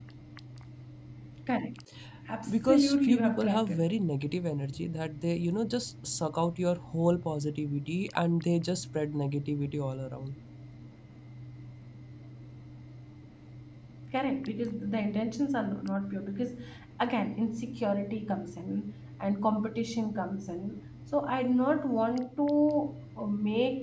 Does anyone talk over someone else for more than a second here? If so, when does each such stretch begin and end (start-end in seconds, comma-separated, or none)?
2.5-3.9